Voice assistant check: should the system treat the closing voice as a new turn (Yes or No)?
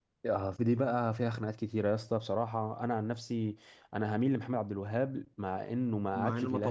Yes